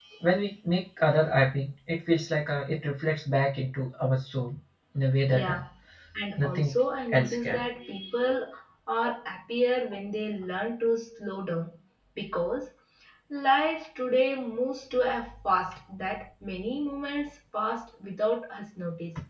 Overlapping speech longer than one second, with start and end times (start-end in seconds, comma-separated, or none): none